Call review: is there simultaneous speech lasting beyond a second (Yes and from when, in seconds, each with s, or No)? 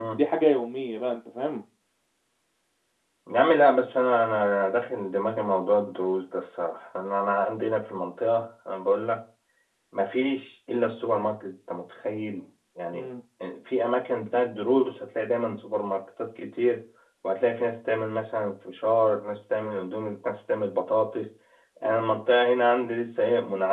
No